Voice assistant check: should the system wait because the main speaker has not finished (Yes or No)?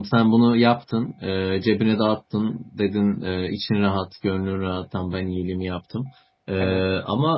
Yes